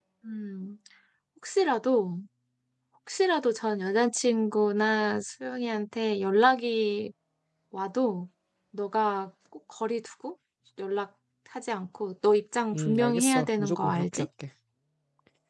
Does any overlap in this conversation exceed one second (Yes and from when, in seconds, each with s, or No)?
Yes, from 12.7 s